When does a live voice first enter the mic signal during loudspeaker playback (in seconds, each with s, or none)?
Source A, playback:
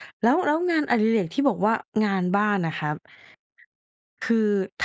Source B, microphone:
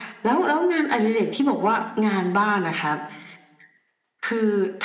none